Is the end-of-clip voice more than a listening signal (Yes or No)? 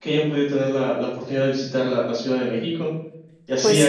No